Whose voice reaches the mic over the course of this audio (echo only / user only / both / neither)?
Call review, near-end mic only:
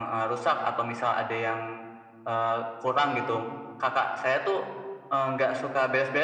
echo only